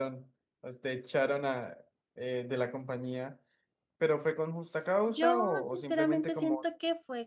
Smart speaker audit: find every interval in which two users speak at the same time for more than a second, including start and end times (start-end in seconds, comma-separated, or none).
5.1-6.6